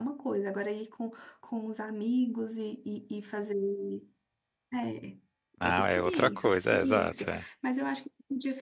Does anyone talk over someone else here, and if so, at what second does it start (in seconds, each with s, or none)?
5.6 s